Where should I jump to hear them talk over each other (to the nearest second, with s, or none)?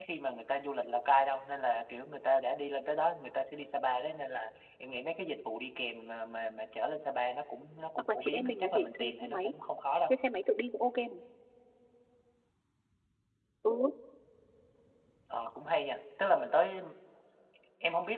8 s